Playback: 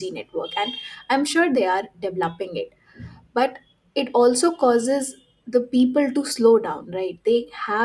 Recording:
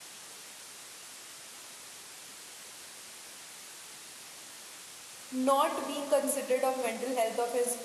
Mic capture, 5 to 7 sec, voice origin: user only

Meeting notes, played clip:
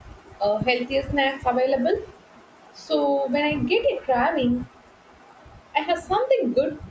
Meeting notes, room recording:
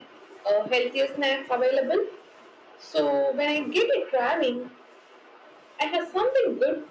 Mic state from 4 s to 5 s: echo only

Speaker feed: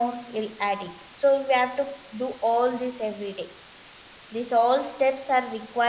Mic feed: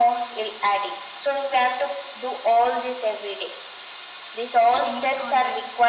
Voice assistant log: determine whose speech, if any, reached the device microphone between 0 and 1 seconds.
echo only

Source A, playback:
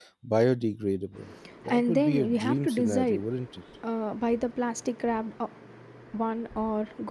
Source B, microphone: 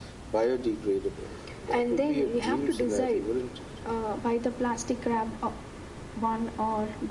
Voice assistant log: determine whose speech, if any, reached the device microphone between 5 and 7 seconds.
echo only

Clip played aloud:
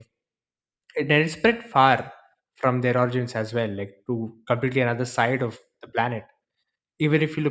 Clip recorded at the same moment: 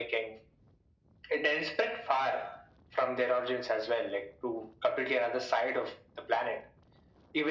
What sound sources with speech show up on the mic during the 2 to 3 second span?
echo only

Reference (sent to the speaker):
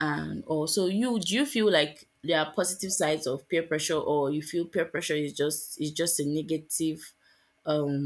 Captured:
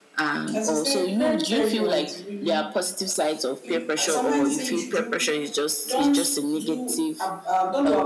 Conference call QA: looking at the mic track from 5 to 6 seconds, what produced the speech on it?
both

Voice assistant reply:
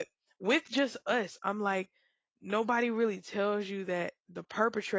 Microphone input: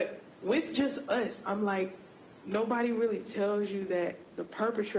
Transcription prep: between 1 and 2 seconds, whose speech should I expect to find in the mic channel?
echo only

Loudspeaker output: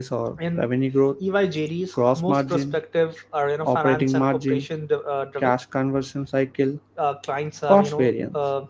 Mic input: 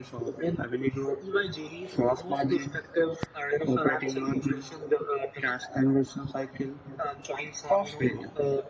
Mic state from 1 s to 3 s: echo only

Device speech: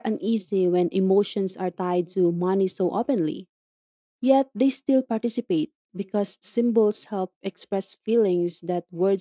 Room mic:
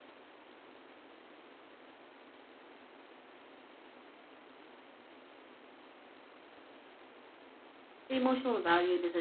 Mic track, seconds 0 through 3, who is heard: neither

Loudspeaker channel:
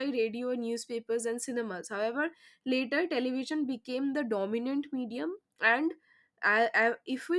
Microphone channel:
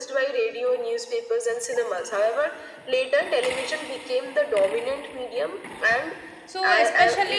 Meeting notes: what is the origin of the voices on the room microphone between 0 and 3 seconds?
echo only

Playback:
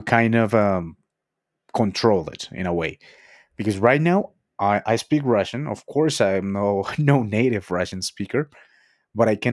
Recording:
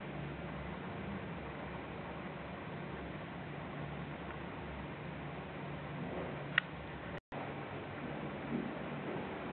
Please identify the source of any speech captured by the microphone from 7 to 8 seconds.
neither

